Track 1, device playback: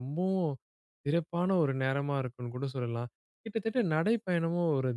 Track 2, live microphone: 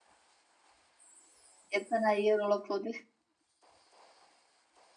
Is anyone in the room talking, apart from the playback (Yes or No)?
Yes